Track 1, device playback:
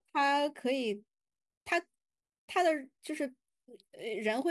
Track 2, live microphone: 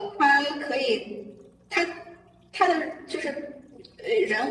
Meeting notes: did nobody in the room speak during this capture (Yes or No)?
Yes